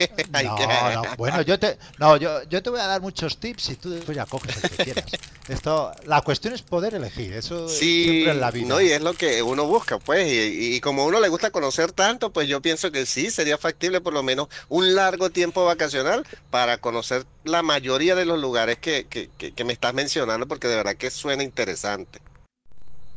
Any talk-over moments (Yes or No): Yes